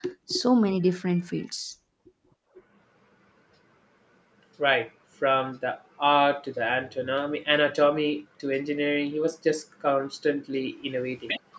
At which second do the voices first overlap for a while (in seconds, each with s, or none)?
none